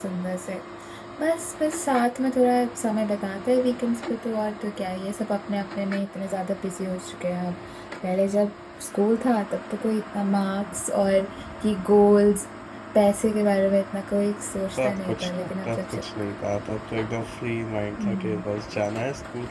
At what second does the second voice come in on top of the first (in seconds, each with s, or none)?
14.8 s